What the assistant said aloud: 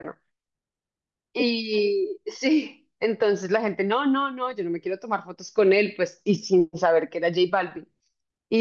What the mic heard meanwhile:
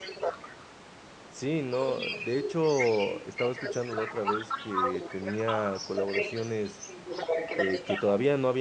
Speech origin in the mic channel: both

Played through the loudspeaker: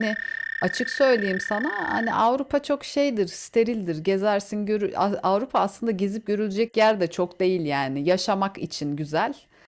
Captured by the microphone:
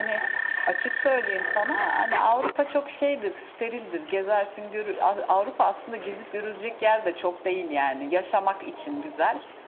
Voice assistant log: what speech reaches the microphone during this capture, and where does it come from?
echo only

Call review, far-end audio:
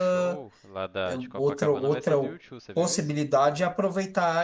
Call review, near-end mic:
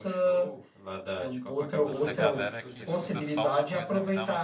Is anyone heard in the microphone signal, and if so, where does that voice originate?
both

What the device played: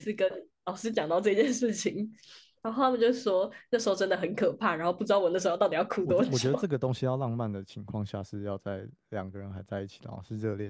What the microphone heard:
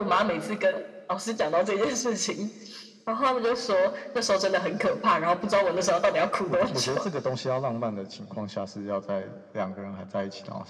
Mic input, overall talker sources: echo only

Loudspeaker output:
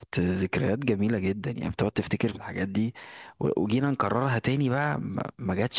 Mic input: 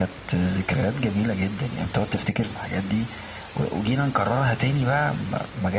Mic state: echo only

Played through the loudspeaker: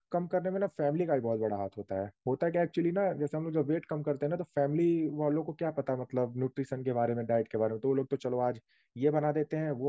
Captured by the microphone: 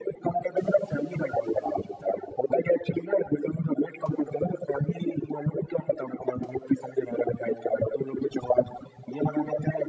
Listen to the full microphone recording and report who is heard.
echo only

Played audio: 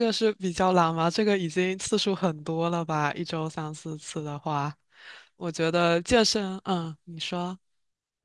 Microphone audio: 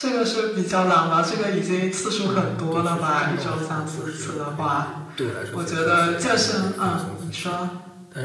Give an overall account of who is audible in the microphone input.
both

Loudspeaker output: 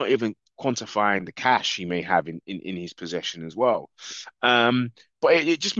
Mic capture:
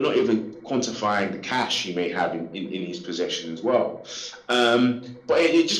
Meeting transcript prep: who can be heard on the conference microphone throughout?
echo only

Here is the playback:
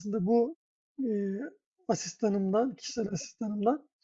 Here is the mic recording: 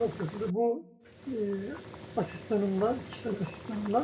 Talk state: echo only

